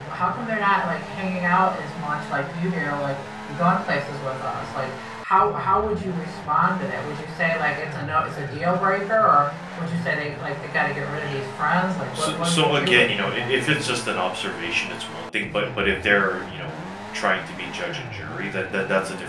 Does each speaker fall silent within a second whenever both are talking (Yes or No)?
No